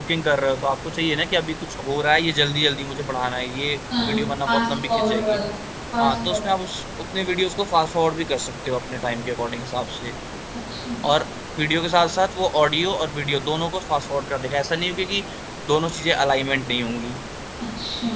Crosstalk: present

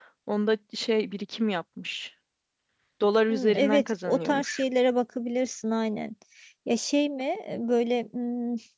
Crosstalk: present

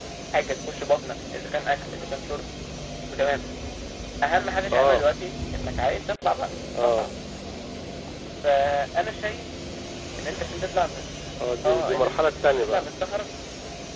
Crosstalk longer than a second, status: present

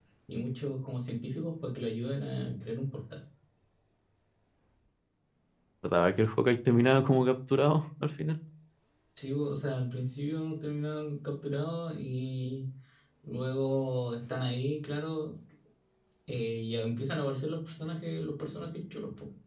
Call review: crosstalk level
none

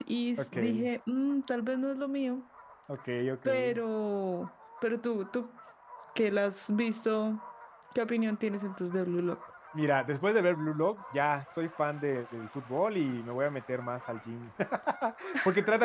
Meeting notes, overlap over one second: none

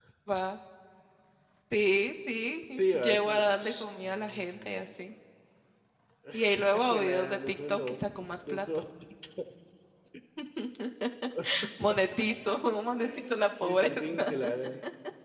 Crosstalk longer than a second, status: present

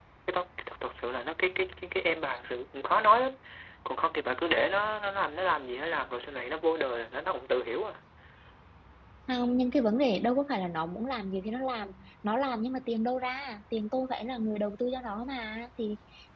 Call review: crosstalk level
none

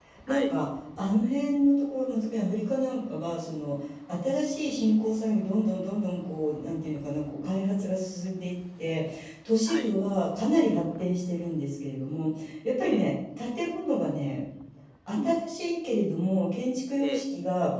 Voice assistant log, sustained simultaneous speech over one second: none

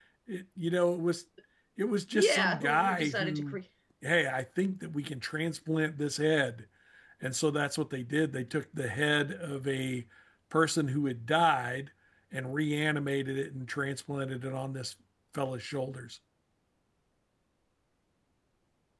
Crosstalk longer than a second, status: present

